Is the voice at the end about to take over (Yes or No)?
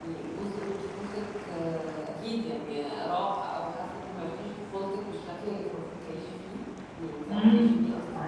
Yes